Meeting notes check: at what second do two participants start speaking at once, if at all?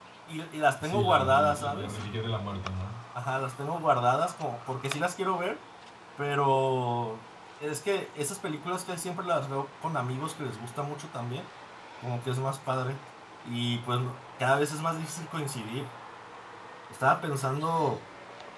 0.8 s

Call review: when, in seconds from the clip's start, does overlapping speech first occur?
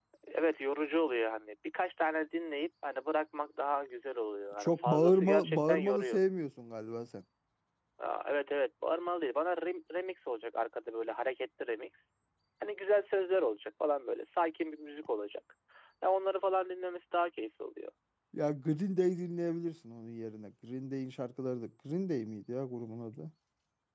4.5 s

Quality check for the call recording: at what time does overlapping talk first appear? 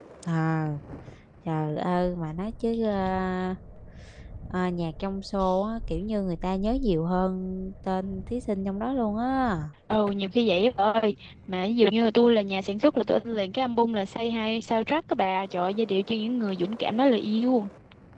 none

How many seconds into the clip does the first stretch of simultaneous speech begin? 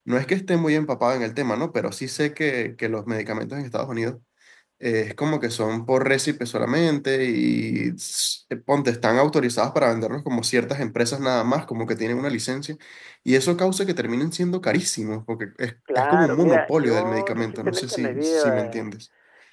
15.9 s

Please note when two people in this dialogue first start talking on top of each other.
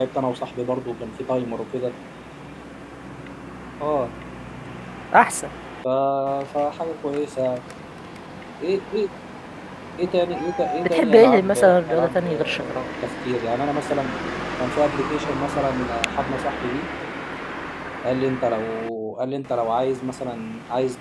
10.8 s

